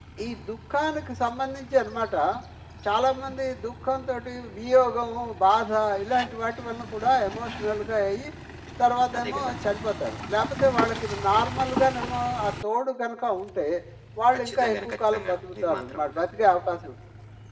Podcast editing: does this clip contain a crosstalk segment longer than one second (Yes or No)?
Yes